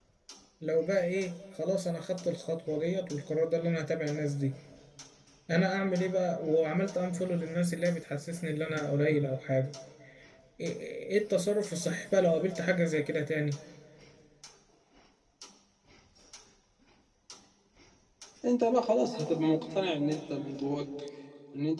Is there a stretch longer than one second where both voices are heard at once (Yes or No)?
No